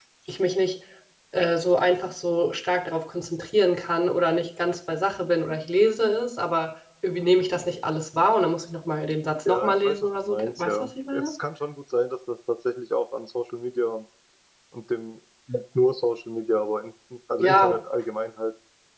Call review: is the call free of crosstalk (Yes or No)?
No